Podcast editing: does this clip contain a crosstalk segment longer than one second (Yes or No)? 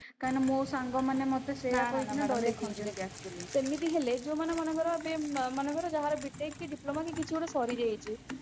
Yes